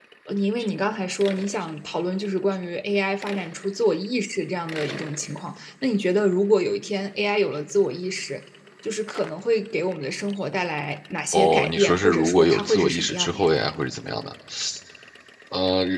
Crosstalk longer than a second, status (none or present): present